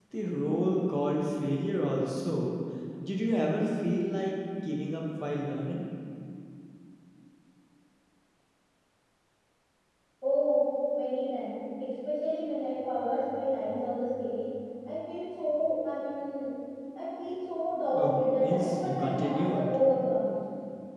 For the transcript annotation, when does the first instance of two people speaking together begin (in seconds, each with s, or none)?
17.9 s